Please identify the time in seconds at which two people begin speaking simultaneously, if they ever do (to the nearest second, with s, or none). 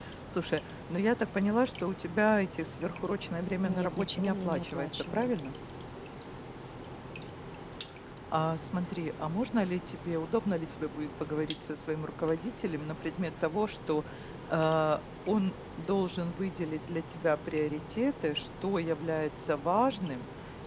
4 s